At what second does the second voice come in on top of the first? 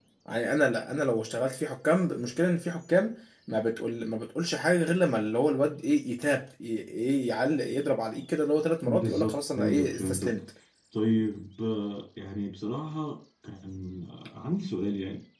8.9 s

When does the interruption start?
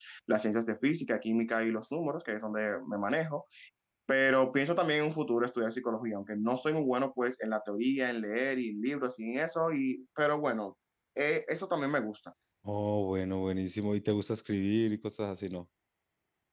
none

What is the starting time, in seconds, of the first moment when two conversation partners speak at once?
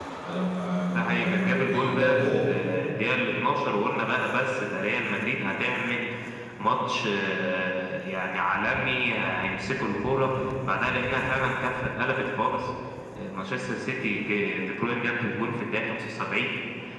1.0 s

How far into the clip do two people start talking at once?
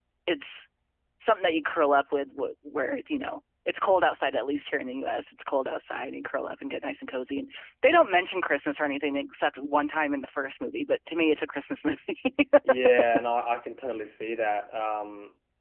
none

